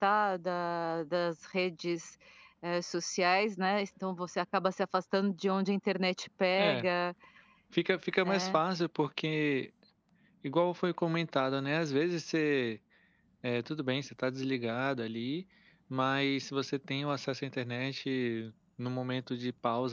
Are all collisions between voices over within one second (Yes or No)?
Yes